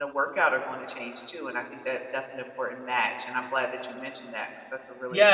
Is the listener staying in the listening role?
No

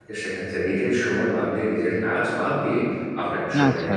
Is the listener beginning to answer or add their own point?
No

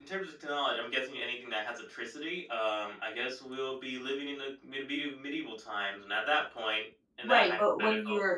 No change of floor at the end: No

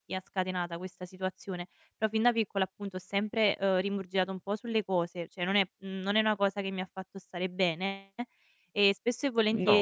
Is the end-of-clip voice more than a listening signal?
No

